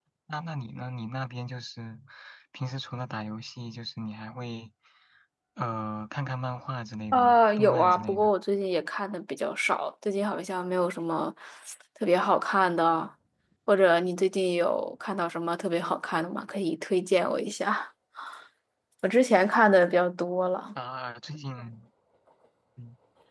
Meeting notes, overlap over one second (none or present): present